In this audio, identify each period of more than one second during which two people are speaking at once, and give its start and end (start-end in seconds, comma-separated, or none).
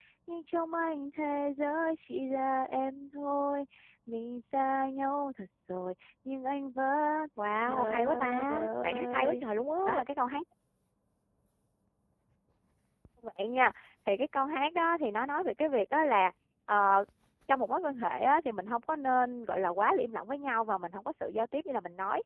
7.5-9.4